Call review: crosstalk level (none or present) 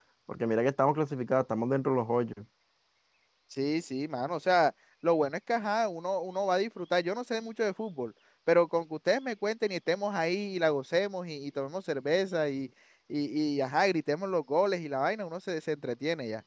none